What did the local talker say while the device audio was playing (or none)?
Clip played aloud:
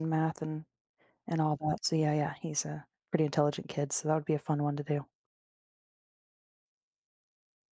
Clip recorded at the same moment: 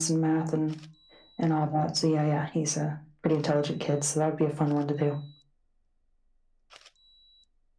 none